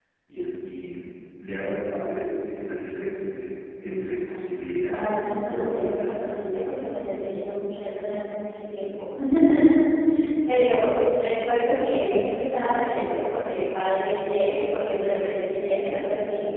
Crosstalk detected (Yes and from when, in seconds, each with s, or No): Yes, from 4.8 s